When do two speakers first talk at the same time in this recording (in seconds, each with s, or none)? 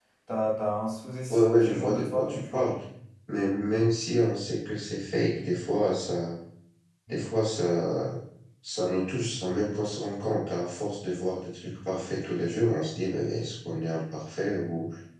1.3 s